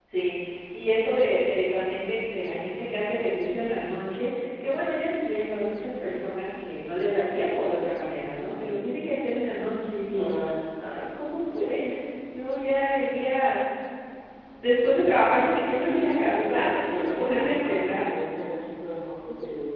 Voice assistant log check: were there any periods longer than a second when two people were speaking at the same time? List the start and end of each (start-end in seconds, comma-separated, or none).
15.7-18.1